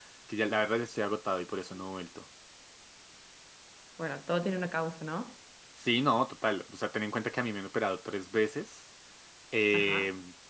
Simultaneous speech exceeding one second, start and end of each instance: none

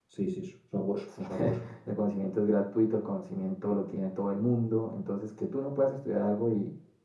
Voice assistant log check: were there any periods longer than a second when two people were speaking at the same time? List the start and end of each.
none

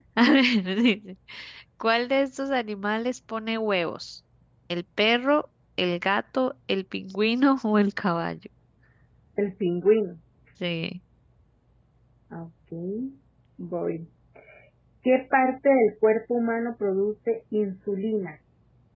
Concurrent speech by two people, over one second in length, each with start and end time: none

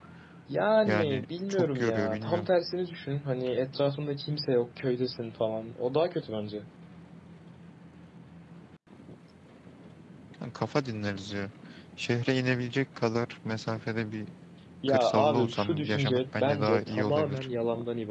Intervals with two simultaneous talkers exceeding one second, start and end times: 0.8-2.5, 14.9-17.5

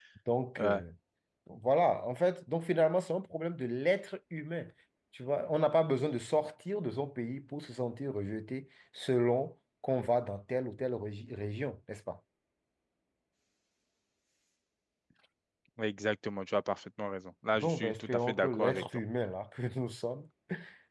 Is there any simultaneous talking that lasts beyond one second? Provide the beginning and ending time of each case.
17.6-18.8

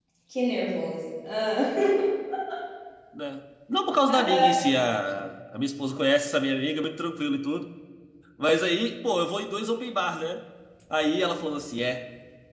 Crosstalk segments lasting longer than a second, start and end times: none

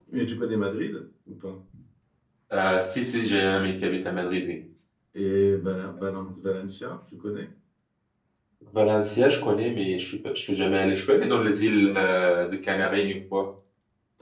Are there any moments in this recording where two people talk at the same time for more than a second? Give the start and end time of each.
none

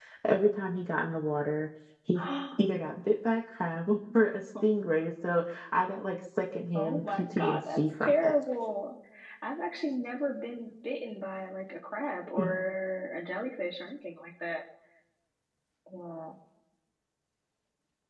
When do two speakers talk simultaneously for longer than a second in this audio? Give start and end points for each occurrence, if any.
6.8-8.3

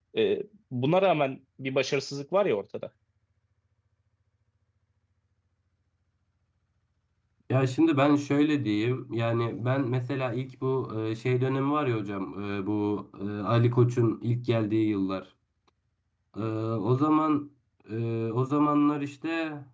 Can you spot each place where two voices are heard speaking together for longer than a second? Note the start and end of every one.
none

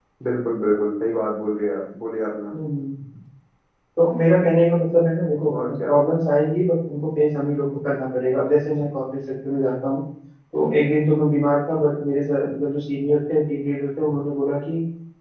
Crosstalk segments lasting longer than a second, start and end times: none

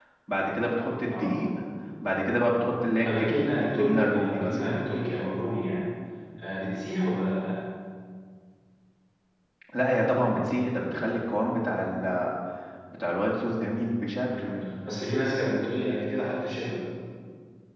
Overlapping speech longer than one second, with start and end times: 3.0-4.6

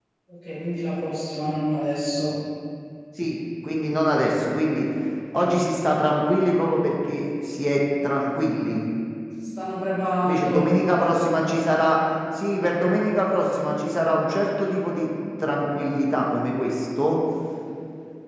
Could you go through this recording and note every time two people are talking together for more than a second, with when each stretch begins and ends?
none

